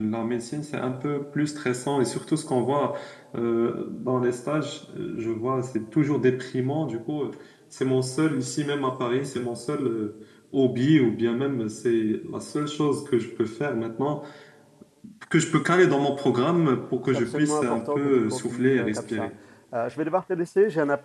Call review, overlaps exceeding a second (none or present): present